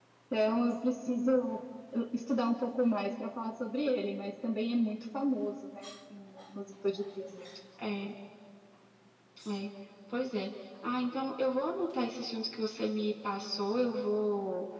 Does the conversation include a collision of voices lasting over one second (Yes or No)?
No